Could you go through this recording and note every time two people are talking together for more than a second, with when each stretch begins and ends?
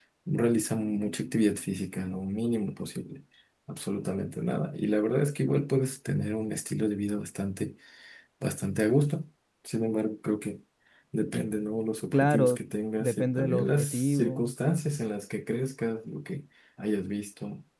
13.0-14.4

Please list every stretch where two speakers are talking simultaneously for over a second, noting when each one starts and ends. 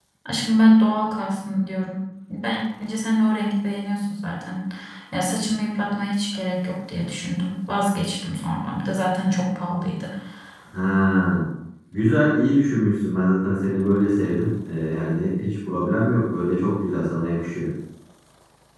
none

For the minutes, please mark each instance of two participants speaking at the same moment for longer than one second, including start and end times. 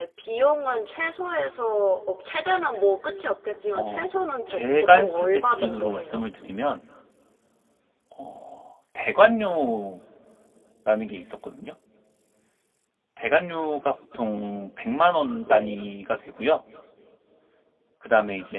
4.5-6.2

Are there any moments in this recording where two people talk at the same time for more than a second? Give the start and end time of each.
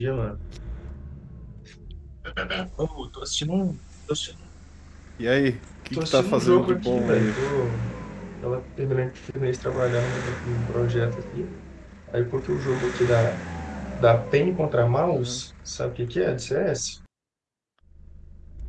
5.9-7.4

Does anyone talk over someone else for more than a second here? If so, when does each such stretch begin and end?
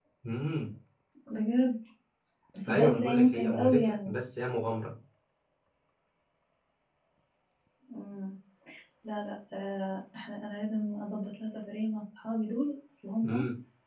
2.7-4.1

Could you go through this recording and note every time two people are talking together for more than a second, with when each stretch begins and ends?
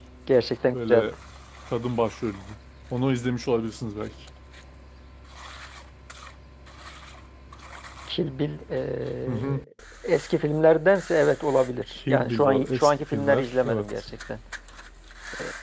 11.9-13.9

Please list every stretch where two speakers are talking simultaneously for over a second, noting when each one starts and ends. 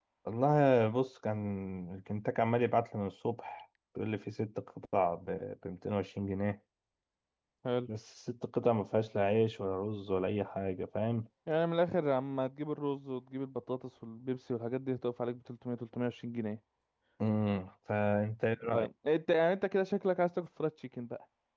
none

